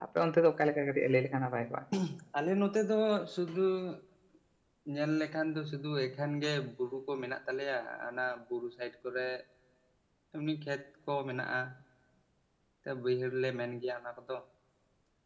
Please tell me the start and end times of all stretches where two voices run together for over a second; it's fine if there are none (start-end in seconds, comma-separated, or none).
none